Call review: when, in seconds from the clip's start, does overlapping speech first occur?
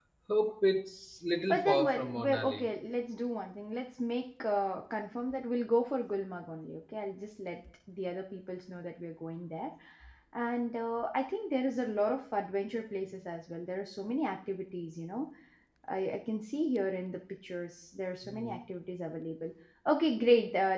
1.5 s

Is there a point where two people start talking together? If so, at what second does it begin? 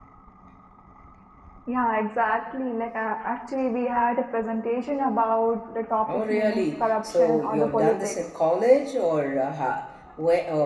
6.1 s

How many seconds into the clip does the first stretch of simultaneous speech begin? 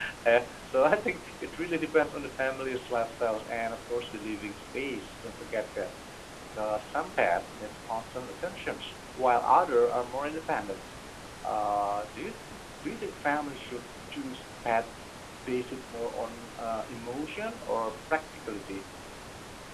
none

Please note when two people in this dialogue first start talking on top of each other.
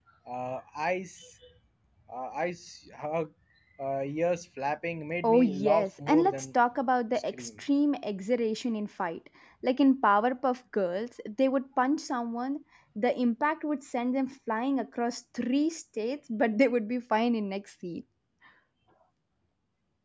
5.2 s

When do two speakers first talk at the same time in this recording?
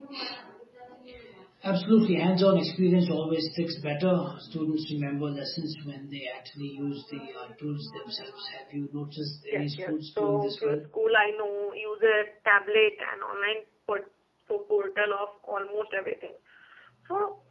9.4 s

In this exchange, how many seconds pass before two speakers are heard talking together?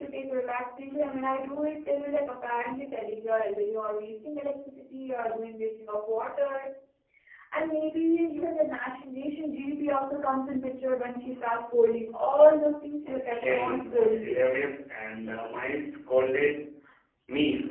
13.0 s

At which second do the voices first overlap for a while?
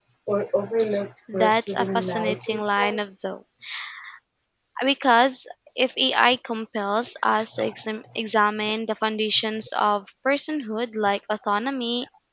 1.3 s

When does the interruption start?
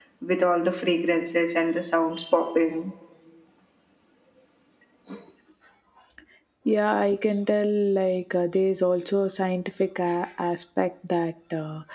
none

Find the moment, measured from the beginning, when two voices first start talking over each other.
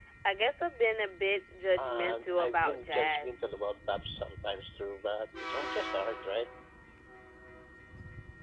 1.8 s

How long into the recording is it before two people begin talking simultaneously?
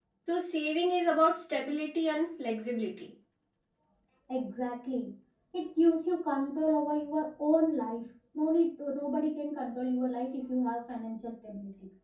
none

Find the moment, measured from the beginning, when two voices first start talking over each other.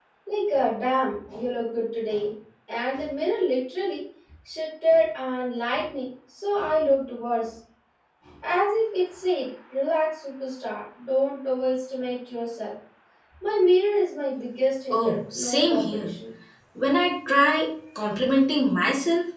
14.9 s

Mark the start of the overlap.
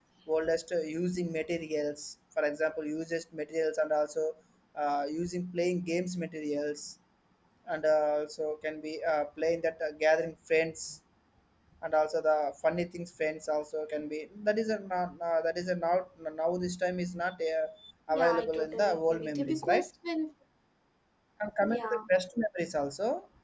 18.1 s

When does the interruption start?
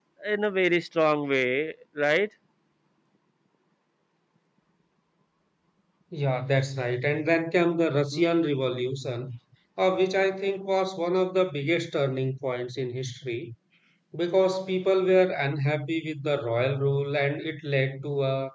none

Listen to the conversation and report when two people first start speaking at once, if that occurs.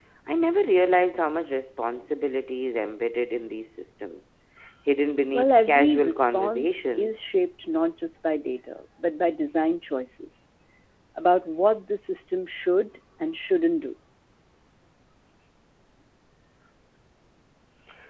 5.3 s

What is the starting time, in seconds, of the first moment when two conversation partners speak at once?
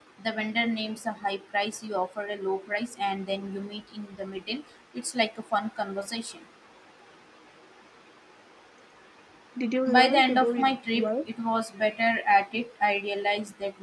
9.8 s

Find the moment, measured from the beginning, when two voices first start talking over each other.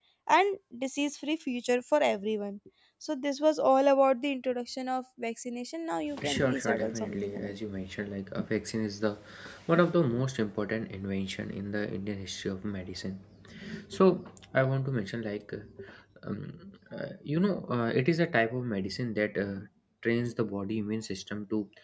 6.1 s

